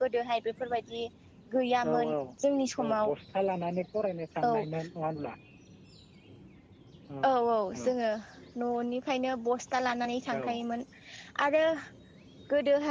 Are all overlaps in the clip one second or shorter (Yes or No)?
Yes